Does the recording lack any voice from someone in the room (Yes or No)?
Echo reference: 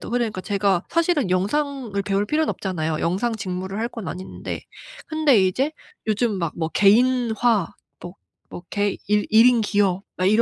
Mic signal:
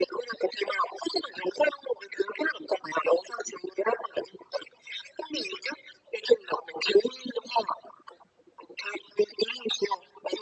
Yes